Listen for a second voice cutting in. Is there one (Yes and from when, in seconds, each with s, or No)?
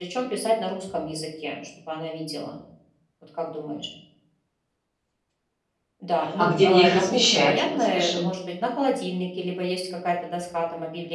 Yes, from 6.4 s